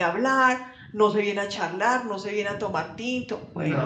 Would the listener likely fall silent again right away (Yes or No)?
No